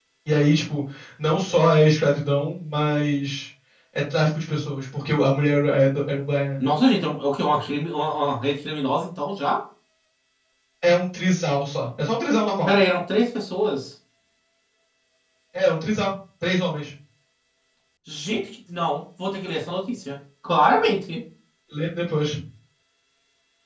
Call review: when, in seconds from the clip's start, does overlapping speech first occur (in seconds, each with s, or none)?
none